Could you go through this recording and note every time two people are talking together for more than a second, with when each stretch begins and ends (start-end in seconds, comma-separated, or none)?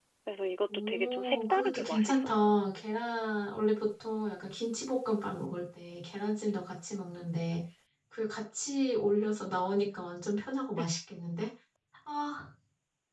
0.9-2.5